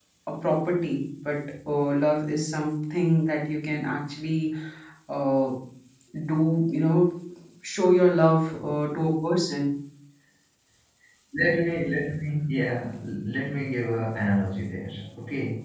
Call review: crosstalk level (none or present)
none